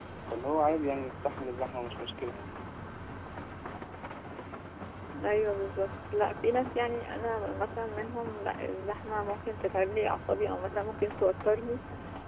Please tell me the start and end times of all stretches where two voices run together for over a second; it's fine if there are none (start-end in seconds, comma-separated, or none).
none